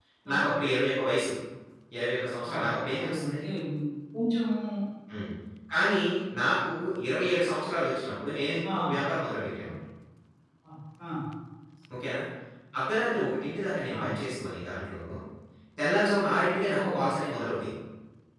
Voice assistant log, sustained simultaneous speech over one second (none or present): none